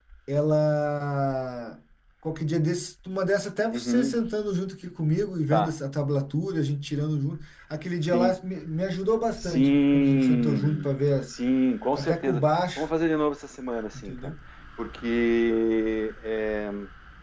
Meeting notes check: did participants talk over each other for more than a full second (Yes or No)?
Yes